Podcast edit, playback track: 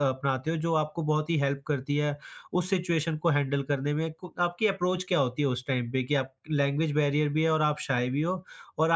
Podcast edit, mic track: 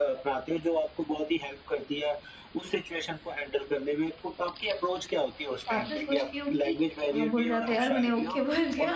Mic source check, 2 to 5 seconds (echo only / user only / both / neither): echo only